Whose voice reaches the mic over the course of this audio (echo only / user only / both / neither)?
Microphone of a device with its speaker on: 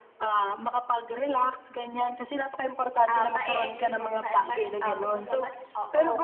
both